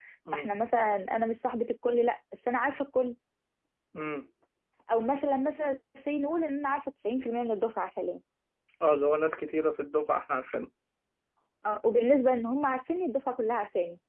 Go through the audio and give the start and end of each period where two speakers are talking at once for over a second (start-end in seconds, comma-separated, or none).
none